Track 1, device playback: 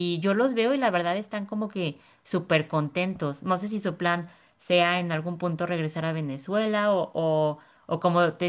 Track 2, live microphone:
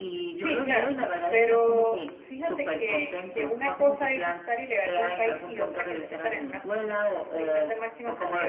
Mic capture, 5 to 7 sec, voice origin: both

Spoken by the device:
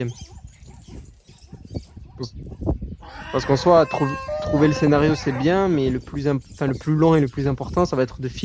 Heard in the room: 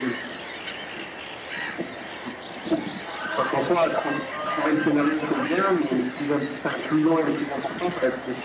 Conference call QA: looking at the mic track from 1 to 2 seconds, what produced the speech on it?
neither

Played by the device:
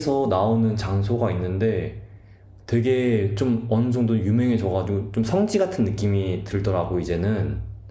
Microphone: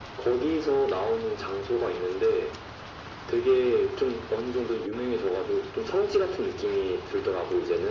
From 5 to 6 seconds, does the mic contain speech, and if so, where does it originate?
echo only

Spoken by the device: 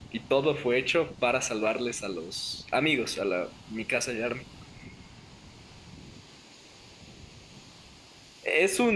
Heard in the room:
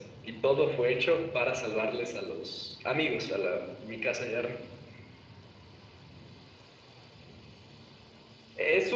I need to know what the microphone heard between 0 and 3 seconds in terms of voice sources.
echo only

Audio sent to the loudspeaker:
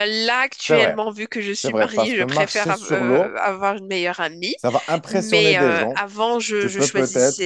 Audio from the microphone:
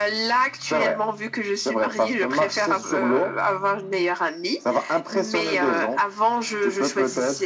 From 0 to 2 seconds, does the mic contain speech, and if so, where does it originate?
echo only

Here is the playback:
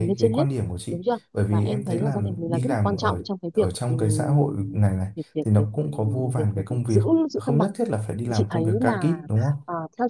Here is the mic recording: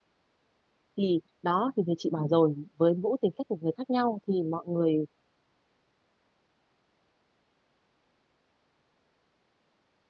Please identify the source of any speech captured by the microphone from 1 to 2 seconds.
user only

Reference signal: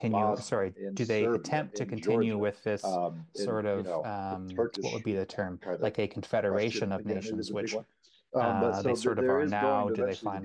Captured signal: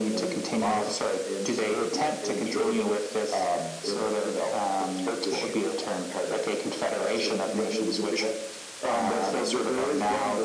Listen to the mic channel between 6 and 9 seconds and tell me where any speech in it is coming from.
echo only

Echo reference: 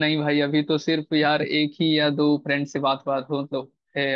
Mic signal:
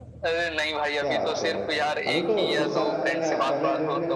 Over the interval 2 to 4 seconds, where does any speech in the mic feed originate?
both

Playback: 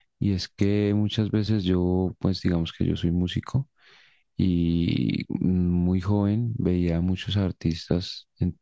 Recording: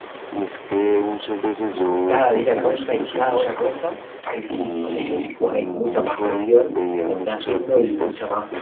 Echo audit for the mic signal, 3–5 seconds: both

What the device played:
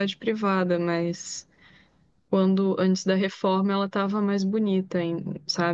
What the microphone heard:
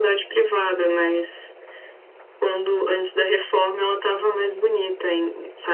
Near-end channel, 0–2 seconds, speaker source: echo only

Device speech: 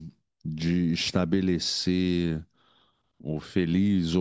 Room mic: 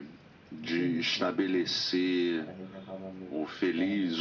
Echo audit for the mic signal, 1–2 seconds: both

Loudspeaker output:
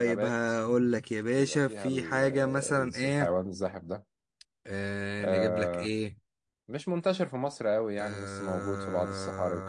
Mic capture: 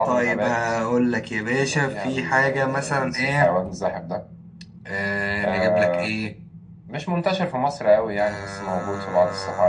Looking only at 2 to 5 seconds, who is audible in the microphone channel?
echo only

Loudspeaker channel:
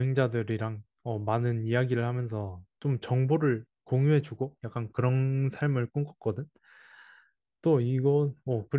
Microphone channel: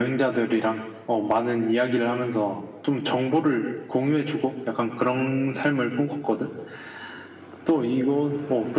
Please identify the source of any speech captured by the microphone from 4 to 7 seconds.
echo only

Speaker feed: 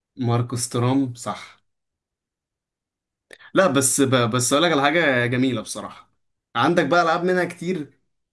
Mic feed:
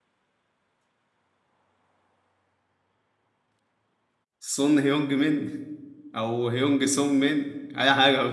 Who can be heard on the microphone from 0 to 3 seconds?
neither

